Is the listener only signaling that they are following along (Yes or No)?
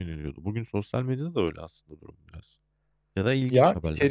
No